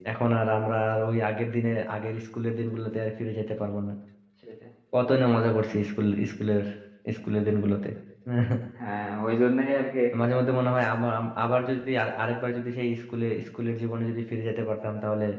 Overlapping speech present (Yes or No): No